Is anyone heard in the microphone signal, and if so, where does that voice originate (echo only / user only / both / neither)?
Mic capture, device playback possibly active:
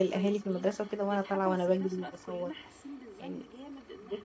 both